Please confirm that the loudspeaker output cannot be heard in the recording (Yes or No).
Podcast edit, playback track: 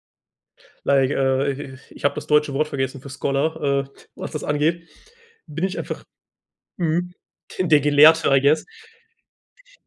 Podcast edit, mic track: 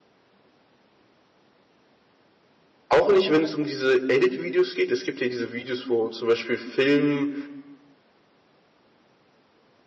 Yes